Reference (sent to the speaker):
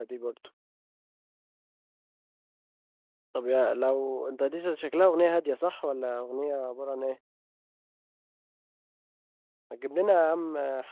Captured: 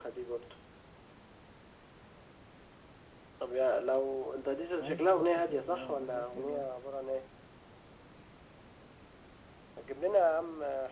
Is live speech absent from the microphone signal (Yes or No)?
No